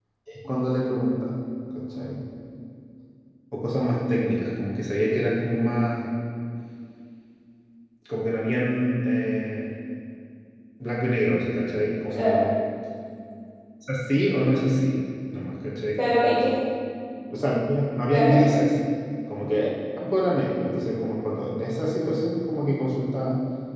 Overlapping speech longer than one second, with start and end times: none

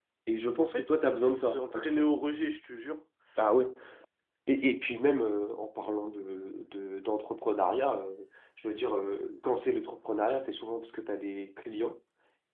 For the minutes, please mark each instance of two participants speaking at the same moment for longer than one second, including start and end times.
0.6-2.0

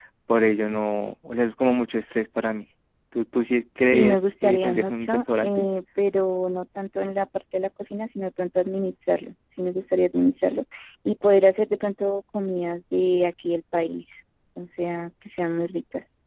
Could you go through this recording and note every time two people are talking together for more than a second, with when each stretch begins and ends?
3.9-5.7

